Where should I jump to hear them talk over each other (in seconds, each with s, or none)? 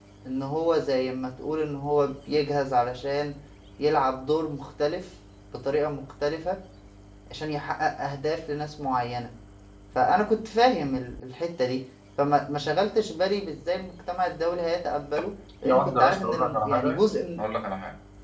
15.6 s